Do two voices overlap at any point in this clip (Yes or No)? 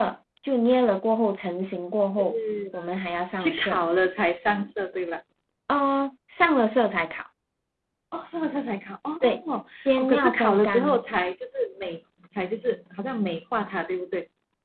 Yes